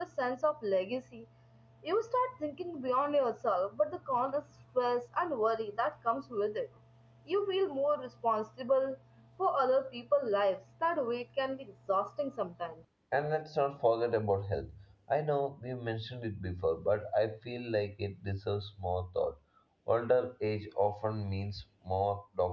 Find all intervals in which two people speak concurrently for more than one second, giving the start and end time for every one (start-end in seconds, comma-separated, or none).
none